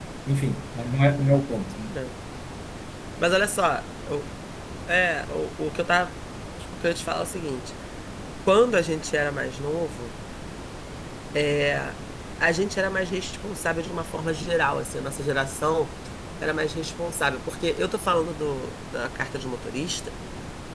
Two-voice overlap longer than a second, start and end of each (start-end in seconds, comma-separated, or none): none